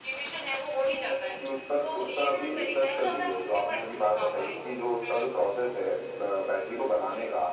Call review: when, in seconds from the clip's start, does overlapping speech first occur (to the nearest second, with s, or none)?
2 s